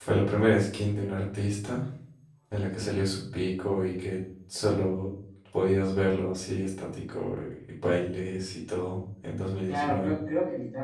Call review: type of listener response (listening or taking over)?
taking over